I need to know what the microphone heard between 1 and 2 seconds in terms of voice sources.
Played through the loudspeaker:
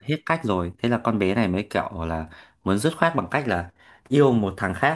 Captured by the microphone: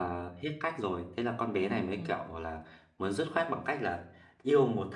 both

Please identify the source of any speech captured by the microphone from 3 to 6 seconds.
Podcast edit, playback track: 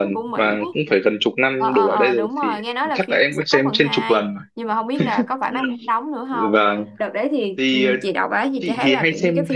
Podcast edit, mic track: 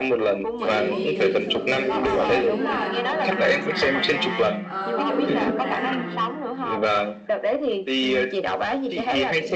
both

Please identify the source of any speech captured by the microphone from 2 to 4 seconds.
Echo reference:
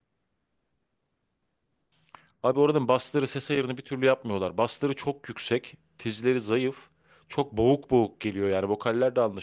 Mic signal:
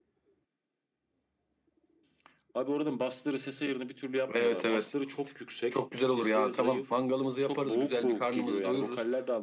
echo only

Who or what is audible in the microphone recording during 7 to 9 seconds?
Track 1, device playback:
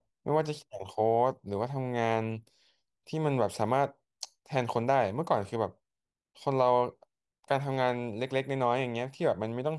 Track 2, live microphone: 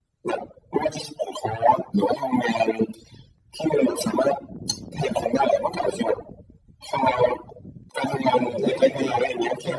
both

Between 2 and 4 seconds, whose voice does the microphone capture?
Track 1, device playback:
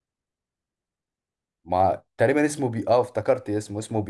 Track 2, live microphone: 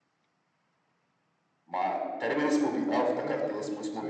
both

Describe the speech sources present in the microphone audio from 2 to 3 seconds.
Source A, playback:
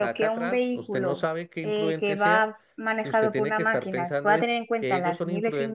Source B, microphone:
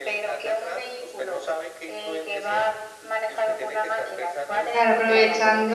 echo only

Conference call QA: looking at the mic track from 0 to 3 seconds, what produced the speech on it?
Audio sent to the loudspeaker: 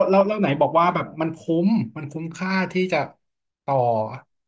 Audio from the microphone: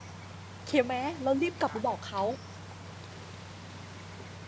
user only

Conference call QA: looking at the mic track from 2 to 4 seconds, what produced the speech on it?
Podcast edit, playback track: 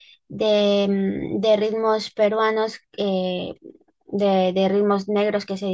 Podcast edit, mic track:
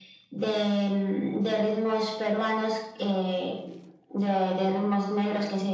echo only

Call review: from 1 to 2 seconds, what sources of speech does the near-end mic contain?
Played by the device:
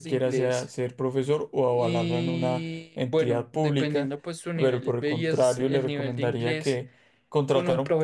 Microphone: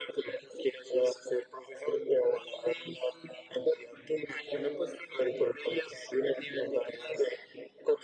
echo only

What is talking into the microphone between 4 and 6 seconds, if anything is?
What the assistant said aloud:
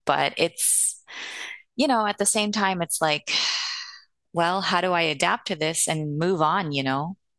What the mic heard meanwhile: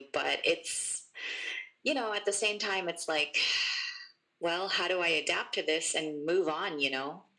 echo only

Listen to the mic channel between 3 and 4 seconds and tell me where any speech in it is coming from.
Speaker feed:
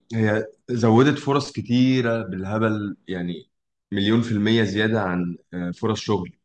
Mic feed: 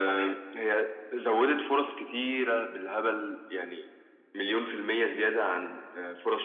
echo only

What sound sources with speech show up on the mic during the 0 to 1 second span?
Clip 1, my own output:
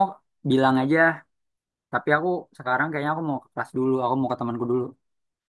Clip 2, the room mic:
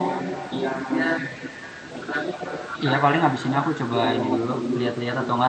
echo only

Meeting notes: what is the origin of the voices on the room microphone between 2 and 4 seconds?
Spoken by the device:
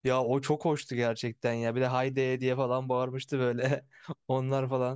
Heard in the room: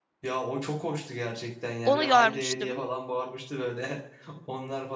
both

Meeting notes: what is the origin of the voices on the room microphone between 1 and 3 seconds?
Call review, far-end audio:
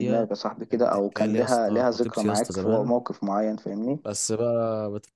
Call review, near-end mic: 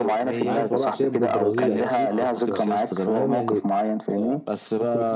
both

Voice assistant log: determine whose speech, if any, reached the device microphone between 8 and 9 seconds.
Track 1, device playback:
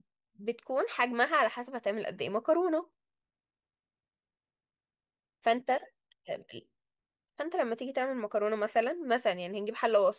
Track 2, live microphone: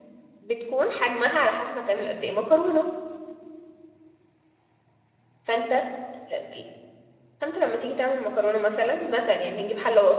echo only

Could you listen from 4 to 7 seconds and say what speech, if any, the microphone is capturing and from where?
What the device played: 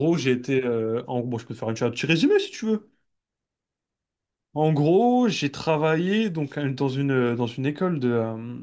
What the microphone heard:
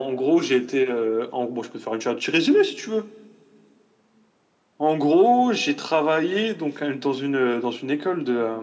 echo only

